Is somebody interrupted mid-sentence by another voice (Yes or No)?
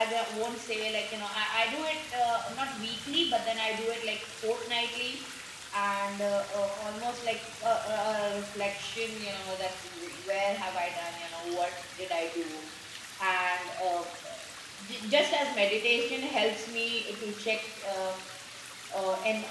No